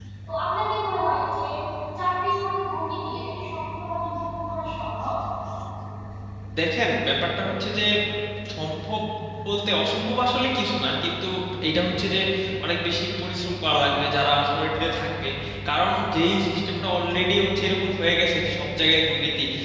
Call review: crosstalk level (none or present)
none